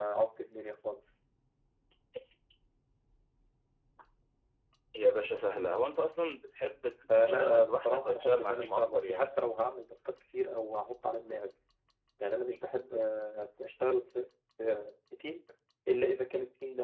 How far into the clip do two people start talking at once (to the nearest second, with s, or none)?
7 s